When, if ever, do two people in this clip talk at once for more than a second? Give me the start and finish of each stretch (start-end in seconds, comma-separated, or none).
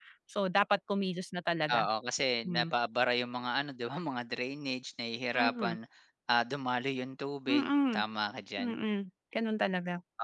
none